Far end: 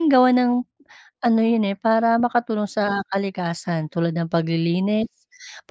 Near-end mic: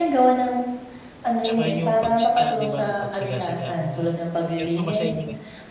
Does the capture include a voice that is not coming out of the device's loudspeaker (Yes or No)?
Yes